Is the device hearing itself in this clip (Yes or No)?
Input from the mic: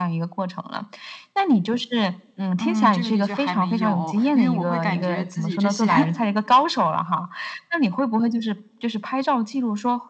Yes